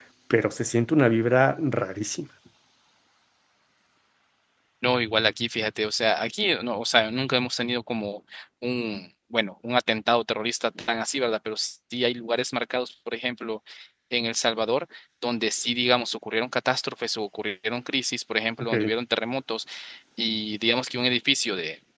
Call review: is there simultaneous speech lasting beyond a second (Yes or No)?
No